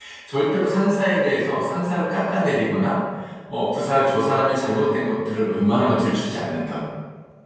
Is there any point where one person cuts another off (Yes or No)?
No